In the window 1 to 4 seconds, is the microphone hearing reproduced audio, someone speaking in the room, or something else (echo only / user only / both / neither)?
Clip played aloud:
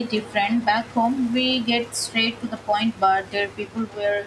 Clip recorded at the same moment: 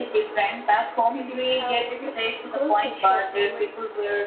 both